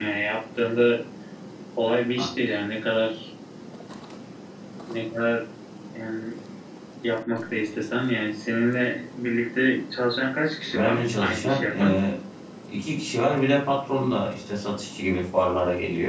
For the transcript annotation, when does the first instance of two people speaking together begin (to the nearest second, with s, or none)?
11 s